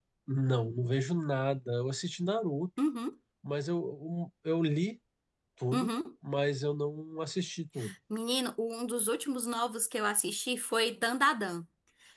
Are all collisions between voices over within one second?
Yes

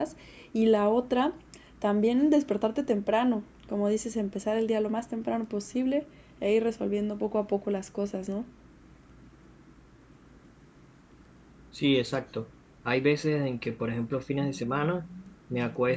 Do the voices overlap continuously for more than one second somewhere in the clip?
No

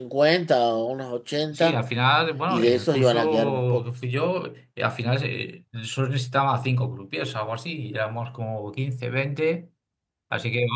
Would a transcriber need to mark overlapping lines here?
Yes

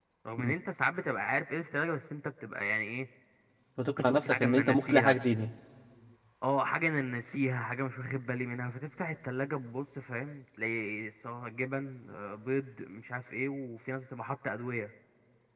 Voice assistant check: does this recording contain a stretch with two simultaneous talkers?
Yes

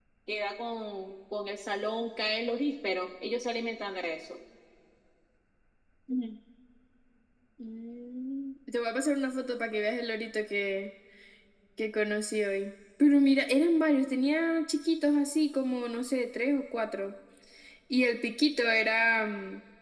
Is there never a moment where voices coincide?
Yes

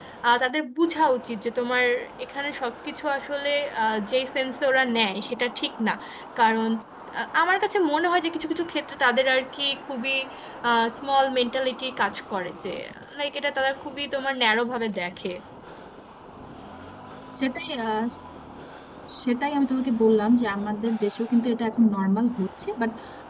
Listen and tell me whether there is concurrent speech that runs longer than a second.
No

